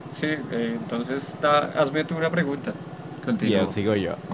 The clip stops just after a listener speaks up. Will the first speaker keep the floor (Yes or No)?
No